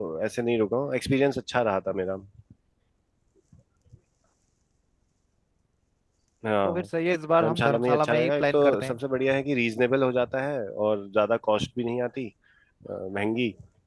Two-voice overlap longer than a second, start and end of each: 7.4-8.9

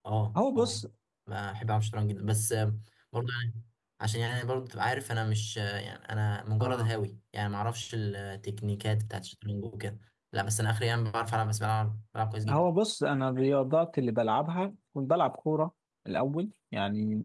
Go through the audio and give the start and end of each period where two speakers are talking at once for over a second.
none

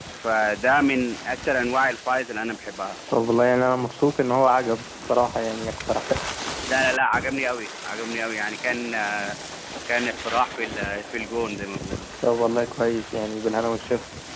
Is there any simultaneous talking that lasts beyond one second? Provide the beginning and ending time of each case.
none

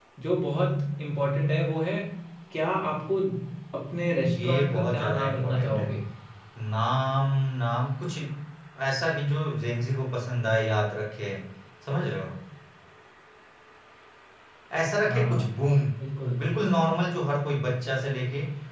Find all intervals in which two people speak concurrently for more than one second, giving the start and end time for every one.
4.2-5.9

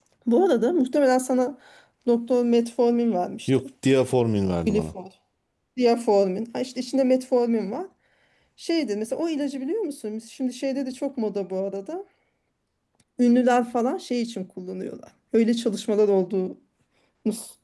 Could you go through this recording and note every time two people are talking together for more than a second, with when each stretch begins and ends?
none

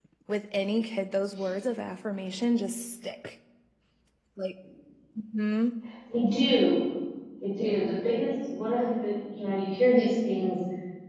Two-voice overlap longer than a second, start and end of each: none

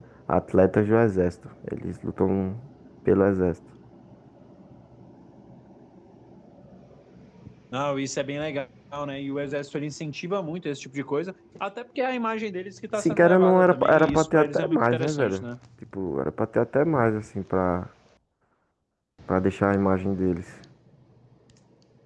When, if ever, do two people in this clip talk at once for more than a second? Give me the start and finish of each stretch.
13.0-15.5

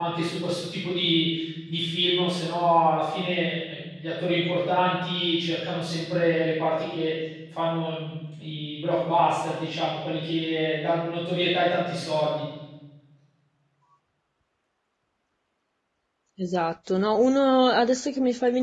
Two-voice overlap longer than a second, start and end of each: none

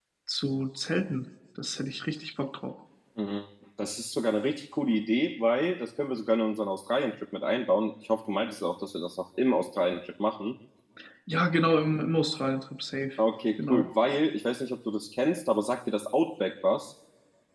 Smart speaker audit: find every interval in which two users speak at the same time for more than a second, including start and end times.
none

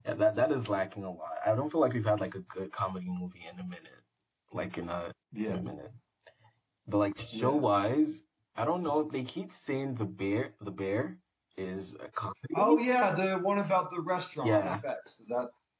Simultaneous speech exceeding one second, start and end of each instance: none

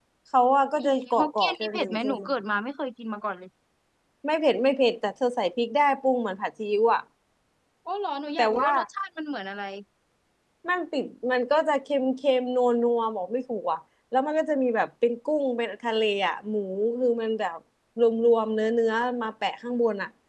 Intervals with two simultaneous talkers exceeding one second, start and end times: 0.8-2.2

